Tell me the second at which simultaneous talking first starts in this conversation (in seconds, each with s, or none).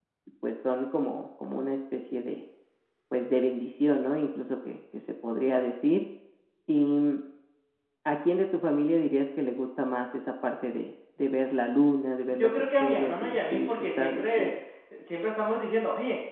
12.4 s